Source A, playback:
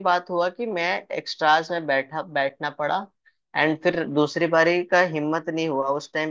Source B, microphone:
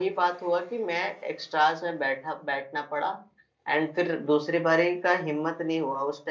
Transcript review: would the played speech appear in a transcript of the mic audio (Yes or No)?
Yes